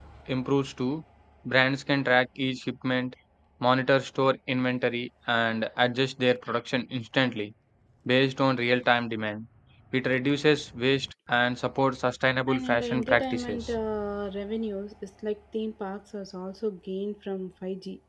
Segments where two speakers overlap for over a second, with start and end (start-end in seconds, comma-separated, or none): 12.5-13.7